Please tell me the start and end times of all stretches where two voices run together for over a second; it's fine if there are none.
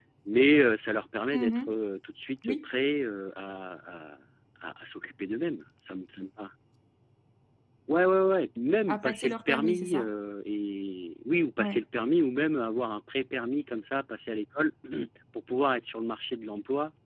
8.9-10.1

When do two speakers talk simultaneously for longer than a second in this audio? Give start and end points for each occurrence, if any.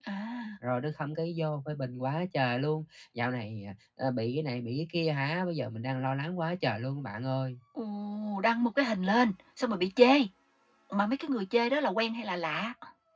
none

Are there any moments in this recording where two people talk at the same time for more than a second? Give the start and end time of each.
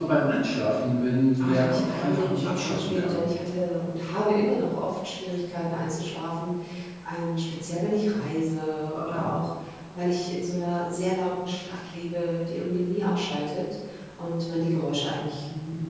1.4-3.2

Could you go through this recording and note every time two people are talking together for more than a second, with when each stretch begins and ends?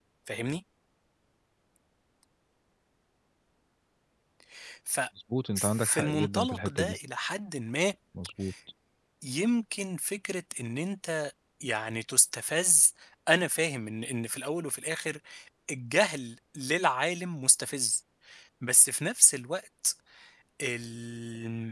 5.6-7.0

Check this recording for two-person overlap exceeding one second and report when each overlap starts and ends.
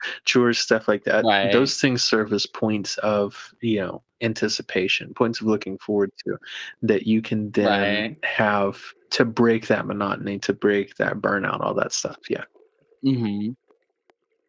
none

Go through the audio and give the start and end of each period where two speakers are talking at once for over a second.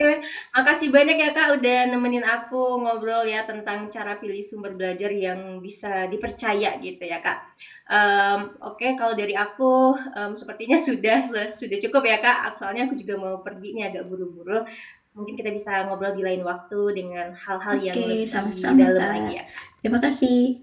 17.9-19.3

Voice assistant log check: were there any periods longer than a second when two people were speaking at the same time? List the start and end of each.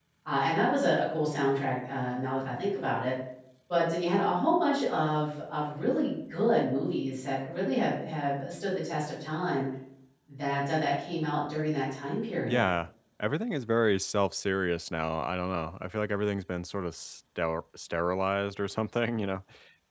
none

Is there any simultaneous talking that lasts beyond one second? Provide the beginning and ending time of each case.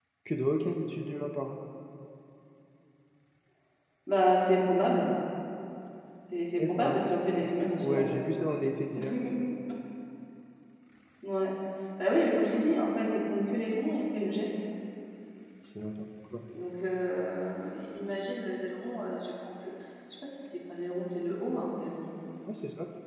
none

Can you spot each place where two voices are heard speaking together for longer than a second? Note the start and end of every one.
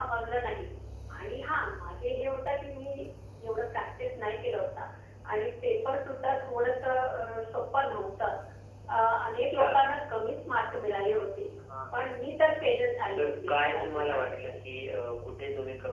13.2-14.4

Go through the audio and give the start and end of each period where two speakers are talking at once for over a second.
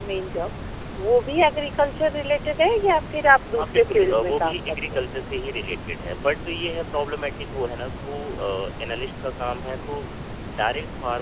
3.6-5.0

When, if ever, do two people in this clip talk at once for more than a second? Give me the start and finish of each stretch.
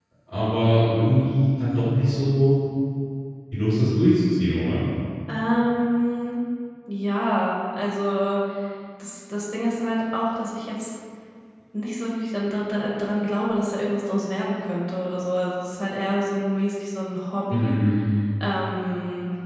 none

